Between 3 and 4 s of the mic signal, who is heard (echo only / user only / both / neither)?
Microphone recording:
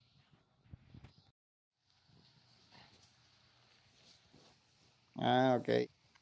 neither